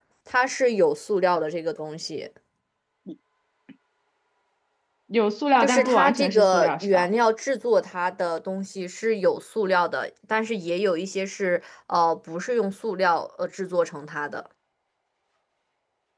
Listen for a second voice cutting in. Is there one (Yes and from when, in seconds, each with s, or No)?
Yes, from 5.6 s